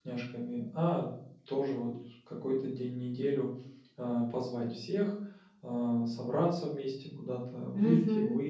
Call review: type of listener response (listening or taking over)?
listening